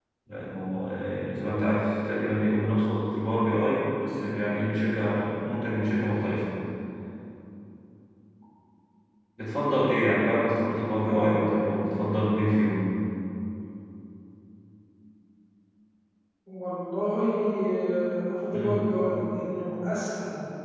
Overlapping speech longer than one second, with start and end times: none

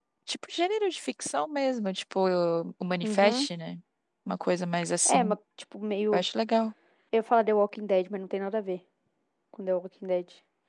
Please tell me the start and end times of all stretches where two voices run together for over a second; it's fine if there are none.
none

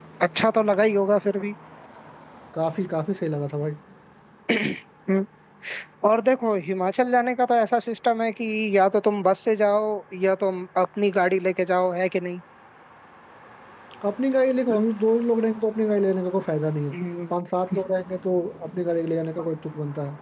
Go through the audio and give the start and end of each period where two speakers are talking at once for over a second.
none

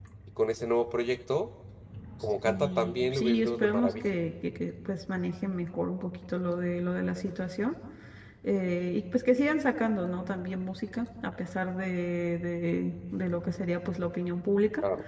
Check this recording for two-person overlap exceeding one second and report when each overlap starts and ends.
2.5-4.0

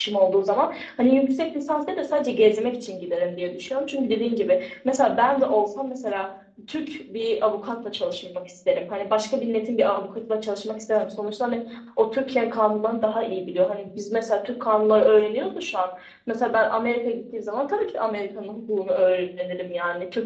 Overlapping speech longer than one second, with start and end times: none

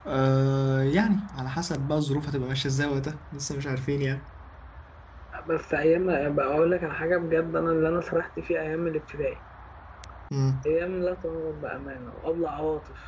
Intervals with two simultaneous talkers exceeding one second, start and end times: none

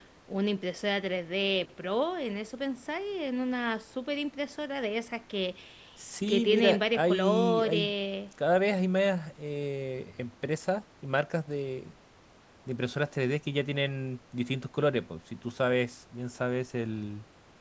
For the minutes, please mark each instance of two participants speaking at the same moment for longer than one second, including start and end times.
6.3-7.9

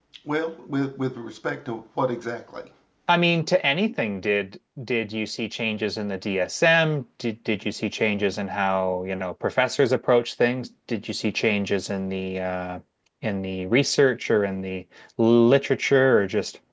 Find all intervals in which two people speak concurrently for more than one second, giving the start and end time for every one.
none

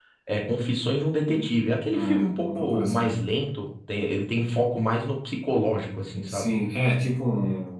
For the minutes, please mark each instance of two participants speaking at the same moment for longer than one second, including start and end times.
1.9-3.2

